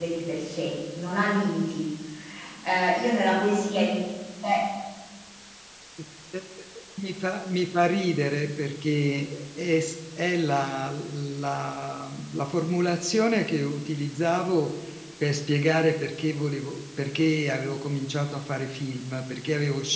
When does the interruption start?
none

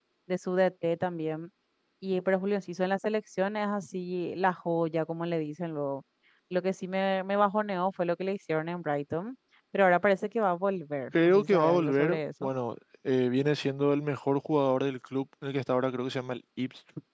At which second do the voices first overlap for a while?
11 s

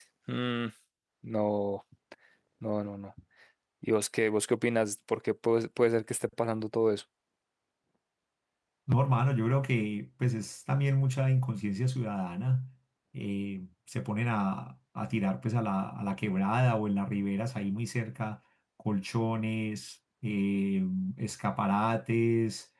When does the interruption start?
none

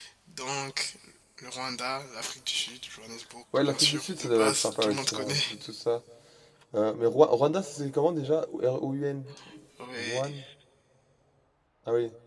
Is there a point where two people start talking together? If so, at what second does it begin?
4 s

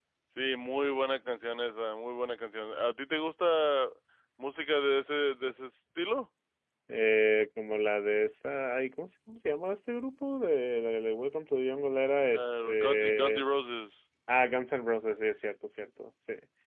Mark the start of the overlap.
12 s

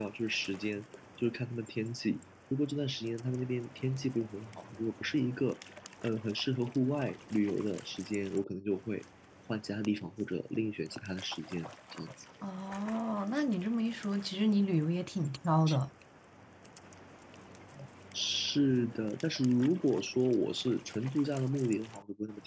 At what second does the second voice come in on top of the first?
none

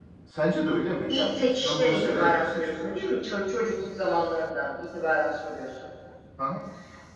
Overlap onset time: 1 s

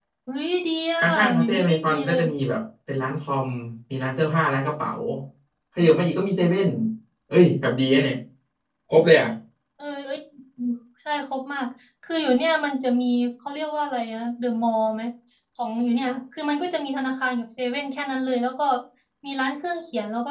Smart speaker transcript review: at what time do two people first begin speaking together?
1 s

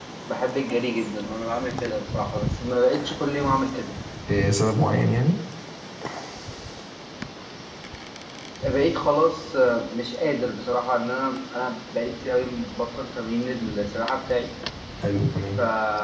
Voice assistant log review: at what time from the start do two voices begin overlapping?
none

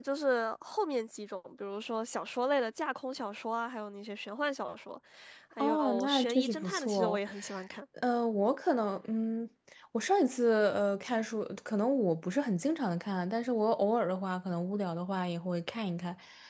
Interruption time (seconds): 6 s

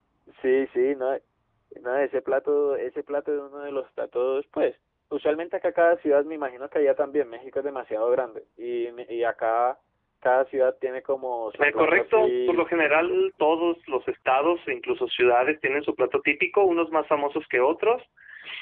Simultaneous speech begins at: 12 s

